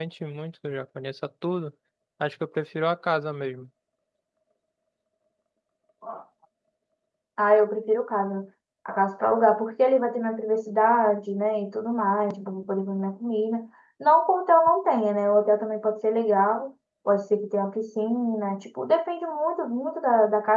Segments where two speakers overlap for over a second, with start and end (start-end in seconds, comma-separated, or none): none